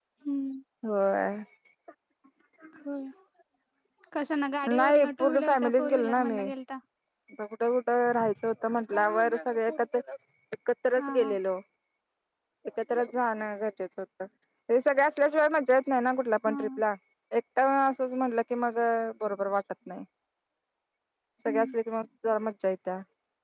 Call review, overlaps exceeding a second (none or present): present